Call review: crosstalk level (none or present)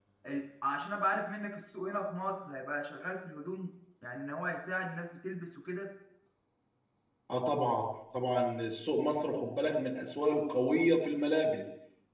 none